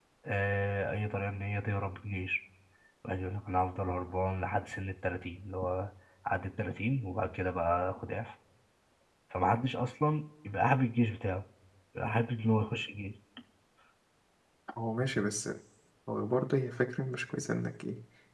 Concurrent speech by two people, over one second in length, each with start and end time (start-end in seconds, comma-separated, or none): none